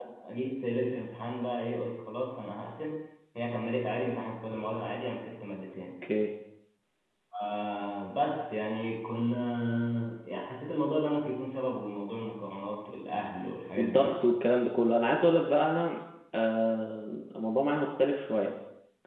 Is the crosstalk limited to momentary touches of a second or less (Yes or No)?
Yes